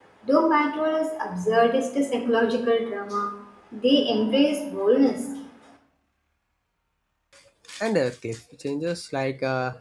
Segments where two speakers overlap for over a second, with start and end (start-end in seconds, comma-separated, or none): none